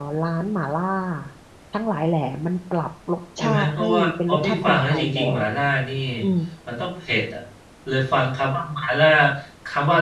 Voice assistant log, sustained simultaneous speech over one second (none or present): present